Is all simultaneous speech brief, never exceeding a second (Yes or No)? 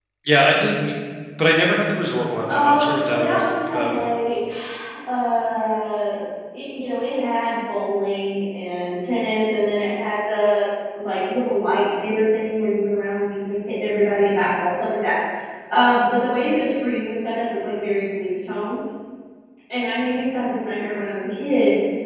No